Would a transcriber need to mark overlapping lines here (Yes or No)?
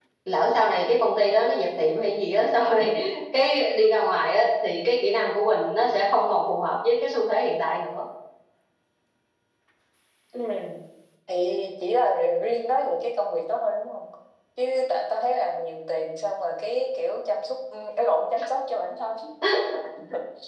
No